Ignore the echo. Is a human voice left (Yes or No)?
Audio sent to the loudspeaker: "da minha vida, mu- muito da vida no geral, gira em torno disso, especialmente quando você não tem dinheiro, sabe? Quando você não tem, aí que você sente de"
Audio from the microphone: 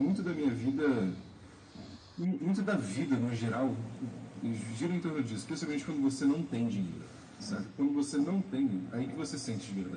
No